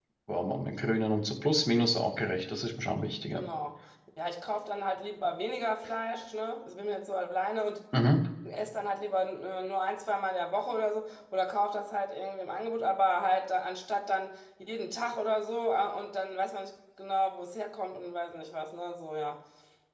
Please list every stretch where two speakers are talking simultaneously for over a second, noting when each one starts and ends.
none

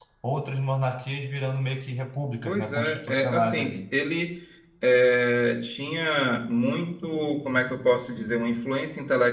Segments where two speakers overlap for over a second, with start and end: 2.5-3.8

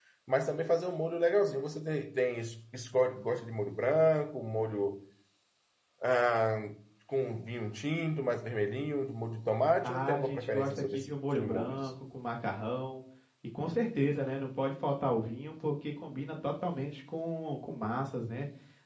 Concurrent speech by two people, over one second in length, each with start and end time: 9.8-11.8

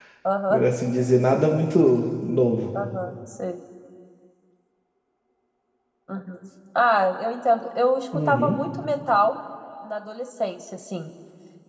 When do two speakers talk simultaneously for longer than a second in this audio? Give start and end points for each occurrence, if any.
none

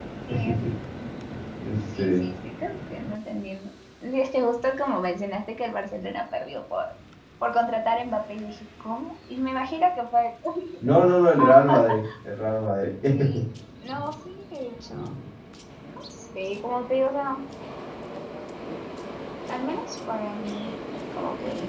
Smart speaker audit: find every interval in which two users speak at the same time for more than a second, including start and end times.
none

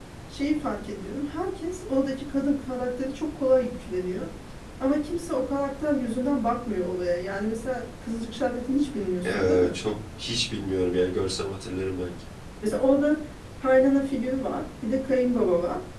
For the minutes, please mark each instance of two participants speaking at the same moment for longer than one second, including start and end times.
none

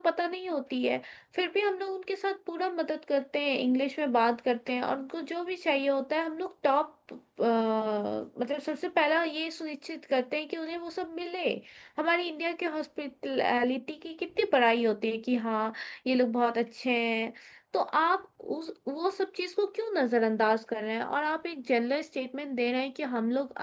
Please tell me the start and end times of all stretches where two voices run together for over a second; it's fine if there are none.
none

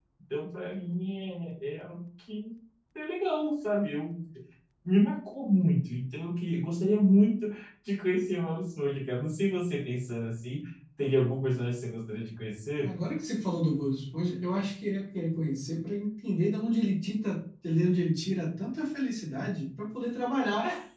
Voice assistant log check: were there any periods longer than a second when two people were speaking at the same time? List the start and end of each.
none

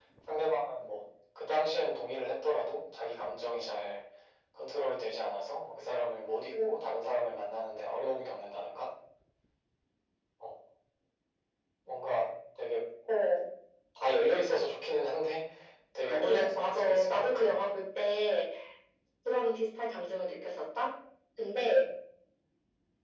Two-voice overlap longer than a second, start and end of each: 16.0-17.4

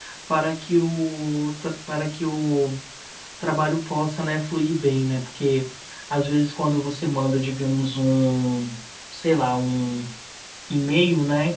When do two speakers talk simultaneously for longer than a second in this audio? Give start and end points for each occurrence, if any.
none

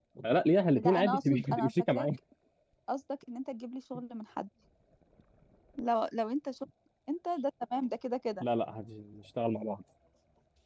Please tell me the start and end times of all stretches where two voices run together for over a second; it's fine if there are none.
0.8-2.1

